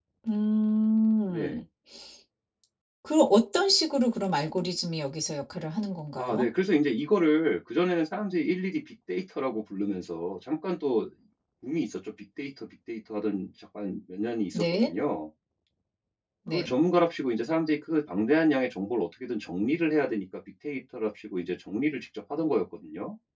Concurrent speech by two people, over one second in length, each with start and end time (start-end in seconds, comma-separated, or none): none